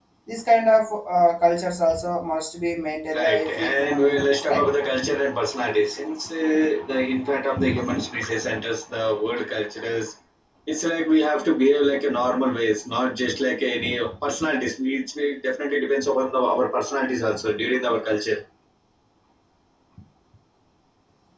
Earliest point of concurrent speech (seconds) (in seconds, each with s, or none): 3.1 s